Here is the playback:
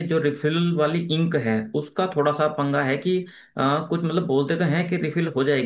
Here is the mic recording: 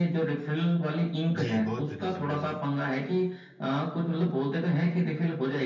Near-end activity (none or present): present